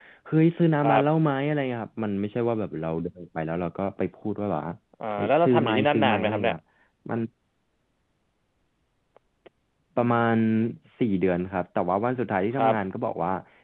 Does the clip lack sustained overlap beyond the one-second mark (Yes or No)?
No